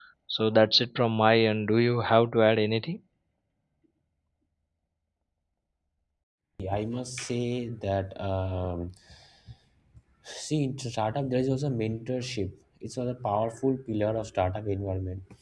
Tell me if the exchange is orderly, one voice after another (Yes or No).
Yes